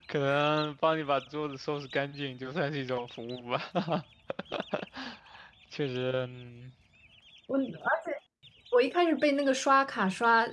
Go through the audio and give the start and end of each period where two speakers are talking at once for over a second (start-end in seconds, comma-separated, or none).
none